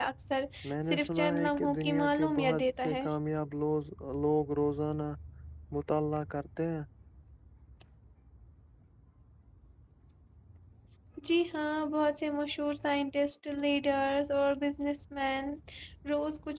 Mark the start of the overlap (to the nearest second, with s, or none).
1 s